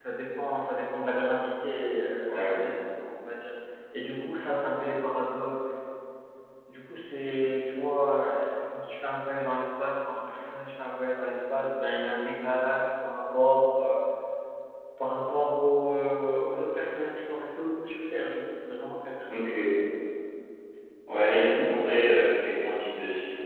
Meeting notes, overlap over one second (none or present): none